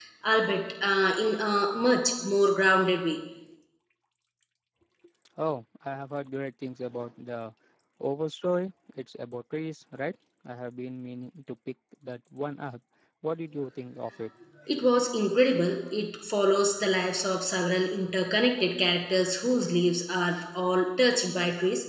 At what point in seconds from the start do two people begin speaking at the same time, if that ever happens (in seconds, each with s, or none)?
none